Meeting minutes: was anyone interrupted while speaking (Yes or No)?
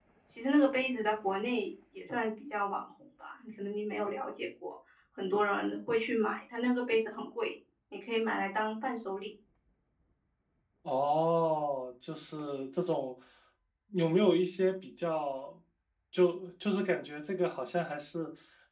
No